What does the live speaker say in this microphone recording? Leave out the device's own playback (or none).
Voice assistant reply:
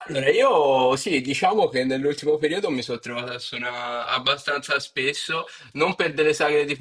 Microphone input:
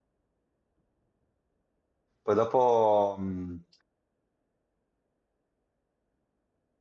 poi dopo mh,